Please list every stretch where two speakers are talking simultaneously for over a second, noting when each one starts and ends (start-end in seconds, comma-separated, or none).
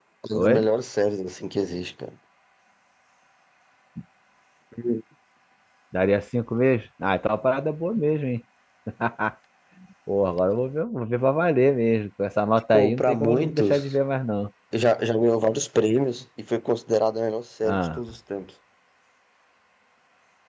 12.7-13.9